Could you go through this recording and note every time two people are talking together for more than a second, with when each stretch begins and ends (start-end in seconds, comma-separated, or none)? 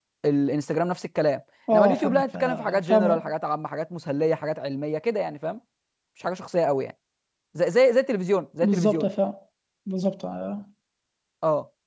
1.7-3.3